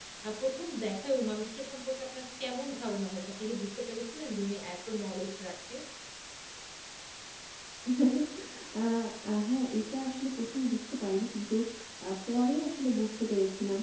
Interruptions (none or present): none